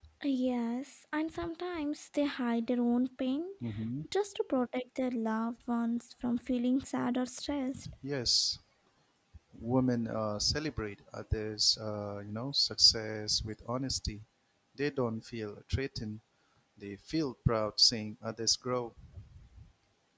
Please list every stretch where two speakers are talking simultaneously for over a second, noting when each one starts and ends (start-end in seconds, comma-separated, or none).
none